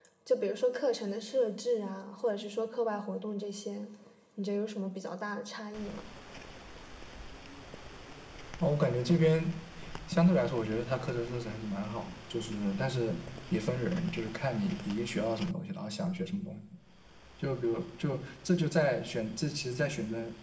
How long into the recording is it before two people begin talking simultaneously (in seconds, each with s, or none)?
none